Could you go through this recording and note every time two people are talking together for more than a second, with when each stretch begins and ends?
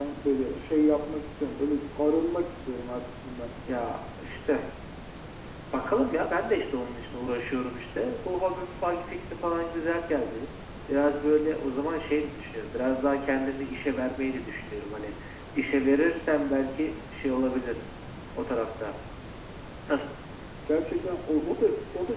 none

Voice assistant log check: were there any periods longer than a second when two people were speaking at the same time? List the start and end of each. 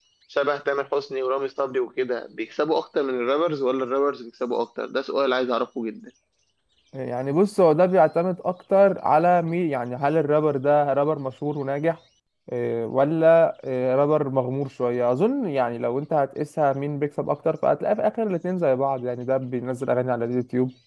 none

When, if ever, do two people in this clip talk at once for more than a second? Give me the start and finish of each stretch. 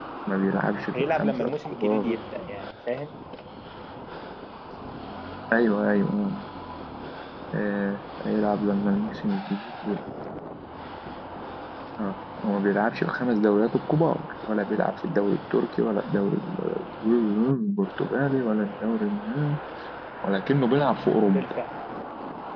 0.9-2.1

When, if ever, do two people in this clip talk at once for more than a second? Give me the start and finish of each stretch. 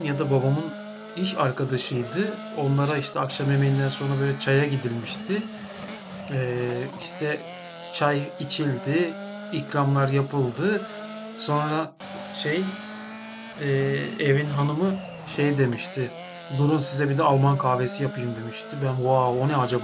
none

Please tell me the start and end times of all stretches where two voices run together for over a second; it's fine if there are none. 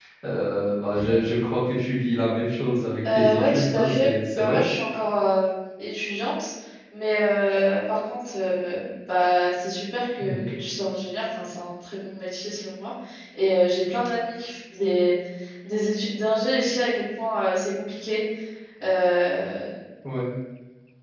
3.1-4.6

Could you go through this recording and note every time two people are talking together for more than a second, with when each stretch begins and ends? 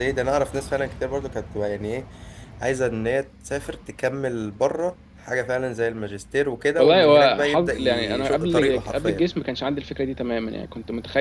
6.8-9.2

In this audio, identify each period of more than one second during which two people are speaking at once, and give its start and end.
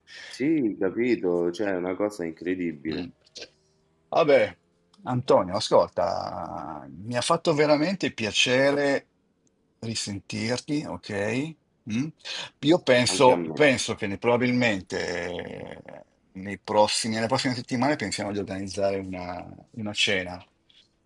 none

